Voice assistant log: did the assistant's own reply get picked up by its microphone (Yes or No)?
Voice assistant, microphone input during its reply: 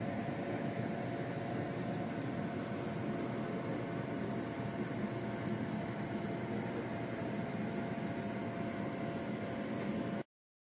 No